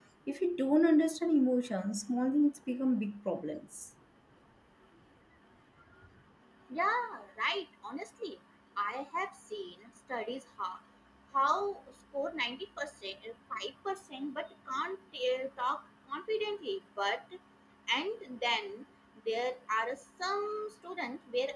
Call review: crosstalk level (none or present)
none